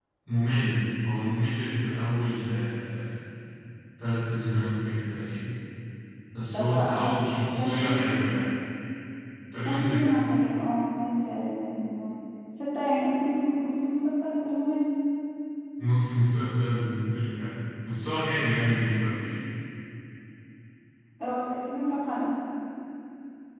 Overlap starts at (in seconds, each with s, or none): 6.5 s